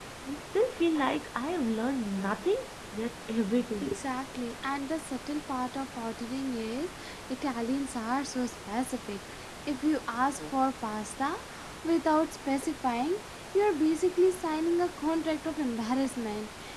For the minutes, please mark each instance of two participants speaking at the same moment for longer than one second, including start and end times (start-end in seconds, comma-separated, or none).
none